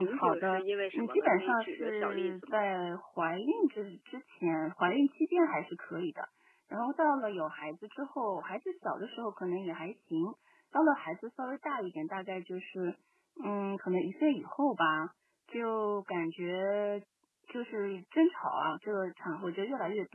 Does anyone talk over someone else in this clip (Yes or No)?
Yes